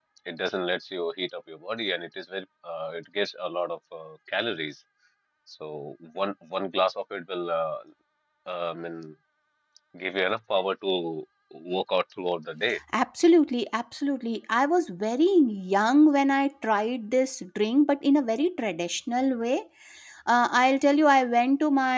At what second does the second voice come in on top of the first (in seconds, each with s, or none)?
none